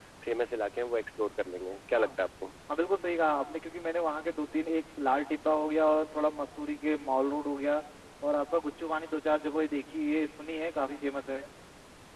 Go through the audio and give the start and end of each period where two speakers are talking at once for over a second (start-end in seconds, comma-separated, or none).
none